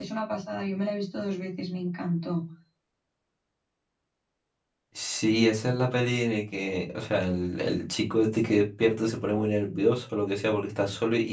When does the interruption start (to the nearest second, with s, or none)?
none